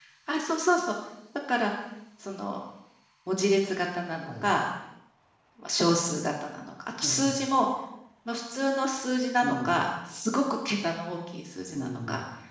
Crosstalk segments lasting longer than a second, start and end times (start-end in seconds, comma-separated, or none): none